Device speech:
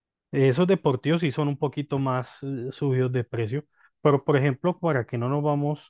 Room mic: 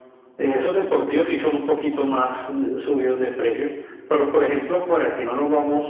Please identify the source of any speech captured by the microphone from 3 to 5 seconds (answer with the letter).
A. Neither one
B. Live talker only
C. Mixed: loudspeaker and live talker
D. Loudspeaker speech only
D